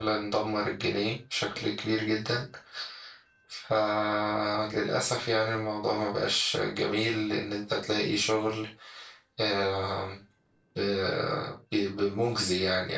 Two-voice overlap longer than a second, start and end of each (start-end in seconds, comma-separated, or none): none